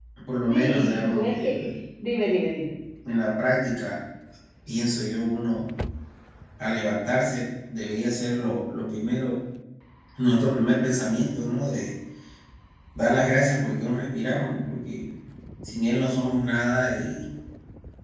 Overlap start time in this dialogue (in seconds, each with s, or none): 0.5 s